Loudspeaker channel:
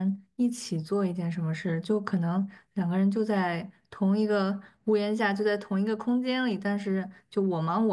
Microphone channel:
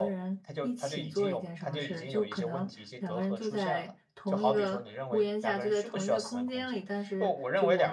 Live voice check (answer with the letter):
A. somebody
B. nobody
A